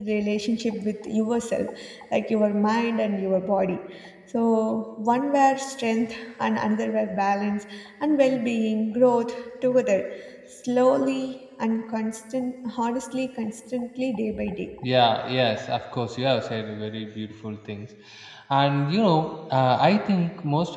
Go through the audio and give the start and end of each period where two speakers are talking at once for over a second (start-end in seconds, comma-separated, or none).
none